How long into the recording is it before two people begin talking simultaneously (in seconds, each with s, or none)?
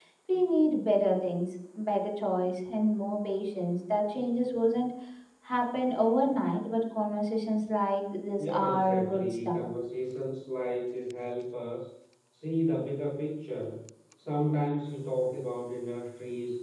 8.3 s